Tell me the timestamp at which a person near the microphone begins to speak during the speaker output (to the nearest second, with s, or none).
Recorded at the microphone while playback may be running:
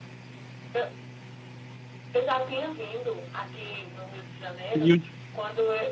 5 s